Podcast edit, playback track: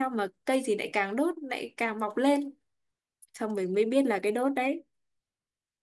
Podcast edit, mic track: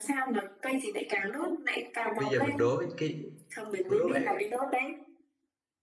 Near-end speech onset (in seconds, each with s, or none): 2.2 s